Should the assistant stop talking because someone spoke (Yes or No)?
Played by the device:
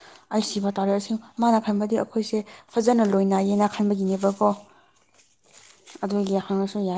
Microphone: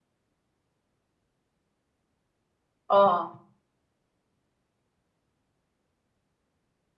Yes